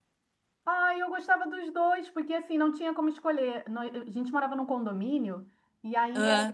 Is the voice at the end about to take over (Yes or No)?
No